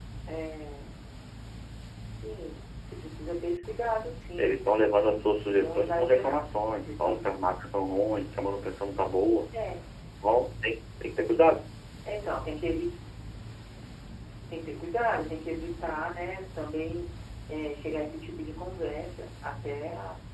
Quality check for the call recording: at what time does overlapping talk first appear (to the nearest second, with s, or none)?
4 s